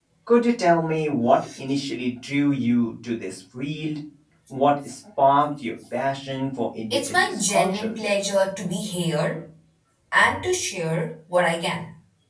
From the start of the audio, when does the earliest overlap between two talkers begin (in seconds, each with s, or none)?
6.9 s